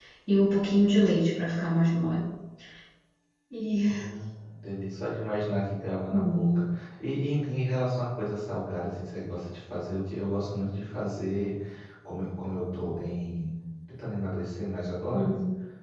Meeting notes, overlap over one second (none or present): none